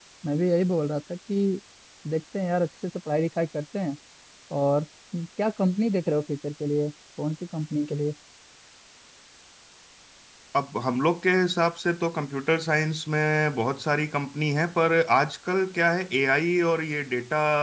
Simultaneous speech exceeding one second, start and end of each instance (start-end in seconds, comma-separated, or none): none